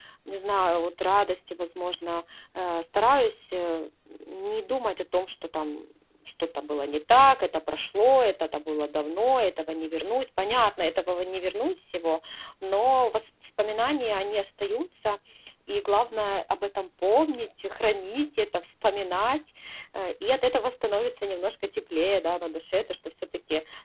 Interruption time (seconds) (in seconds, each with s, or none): none